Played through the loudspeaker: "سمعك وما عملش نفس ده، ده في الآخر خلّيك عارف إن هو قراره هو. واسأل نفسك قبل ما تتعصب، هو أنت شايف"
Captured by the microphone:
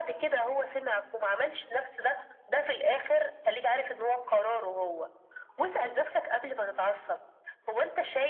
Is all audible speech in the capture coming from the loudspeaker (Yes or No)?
Yes